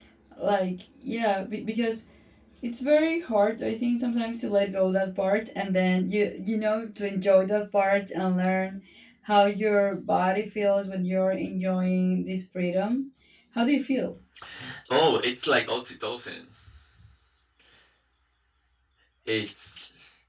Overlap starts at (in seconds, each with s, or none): none